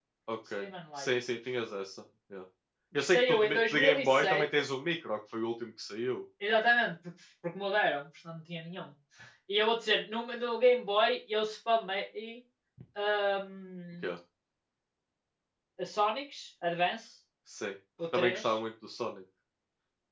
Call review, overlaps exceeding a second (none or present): present